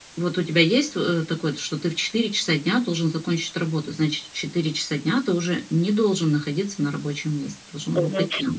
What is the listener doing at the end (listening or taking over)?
taking over